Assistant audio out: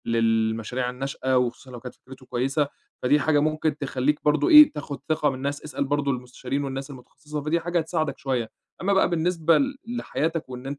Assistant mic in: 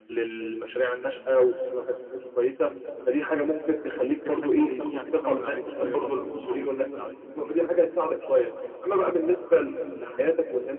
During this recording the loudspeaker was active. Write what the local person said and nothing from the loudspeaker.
فممكن حتّة زي دي يعني تهوّن عليك شوية برضه الموضوع وتسهّل عليك الدنيا أكتر يعني.

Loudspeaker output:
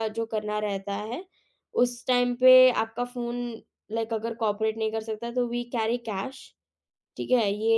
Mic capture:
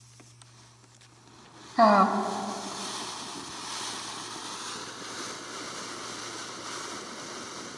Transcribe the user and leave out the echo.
हाँ,

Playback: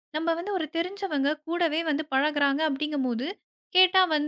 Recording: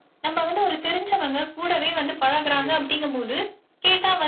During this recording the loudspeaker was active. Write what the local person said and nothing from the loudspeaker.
கண்டிப்பா,

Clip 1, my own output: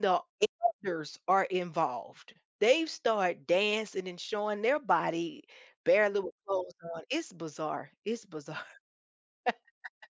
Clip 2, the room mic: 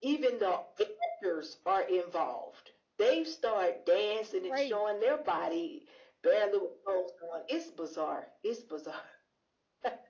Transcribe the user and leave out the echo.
Right.

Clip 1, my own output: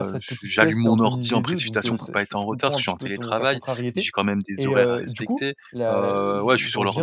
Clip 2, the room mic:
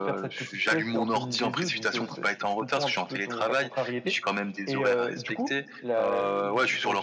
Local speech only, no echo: none

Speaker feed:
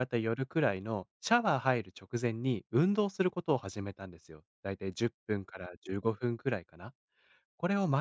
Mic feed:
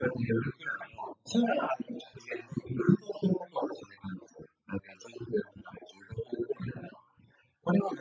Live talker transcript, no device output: none

